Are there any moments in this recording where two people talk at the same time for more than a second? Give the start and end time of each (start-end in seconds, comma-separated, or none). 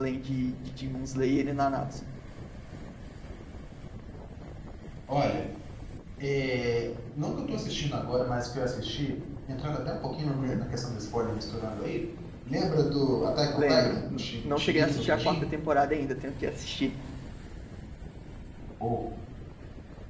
13.6-15.4